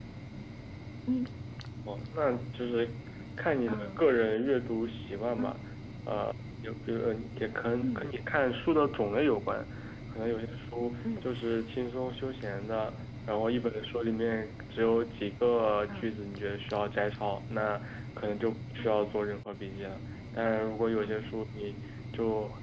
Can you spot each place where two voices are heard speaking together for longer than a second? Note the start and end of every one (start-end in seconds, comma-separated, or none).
none